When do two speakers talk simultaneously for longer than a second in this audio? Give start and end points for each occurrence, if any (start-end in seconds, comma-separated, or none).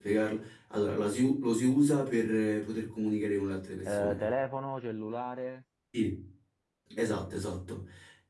none